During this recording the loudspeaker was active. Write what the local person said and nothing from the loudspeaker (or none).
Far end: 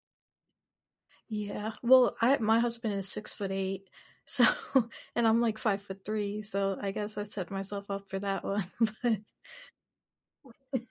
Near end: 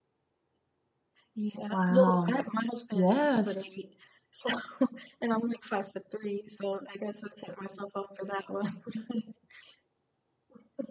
Wow. Yes.